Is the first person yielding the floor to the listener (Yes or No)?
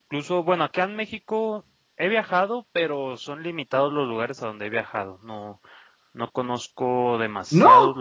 No